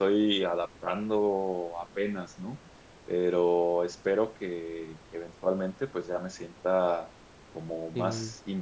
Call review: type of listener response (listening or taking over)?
listening